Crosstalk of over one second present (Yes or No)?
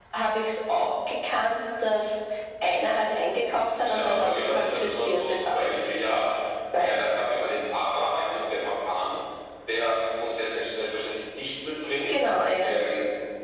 Yes